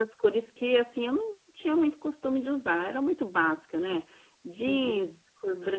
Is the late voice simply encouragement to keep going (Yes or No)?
Yes